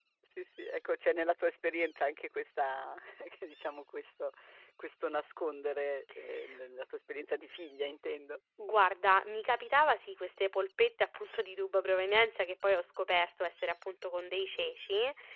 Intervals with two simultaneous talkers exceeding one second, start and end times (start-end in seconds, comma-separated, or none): none